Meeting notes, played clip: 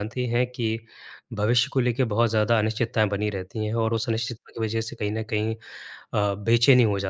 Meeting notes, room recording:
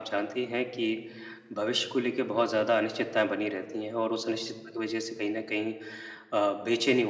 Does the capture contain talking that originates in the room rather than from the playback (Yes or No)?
No